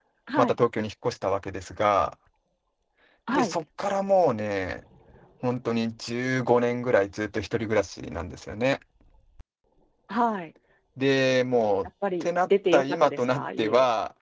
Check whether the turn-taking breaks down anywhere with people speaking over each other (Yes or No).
Yes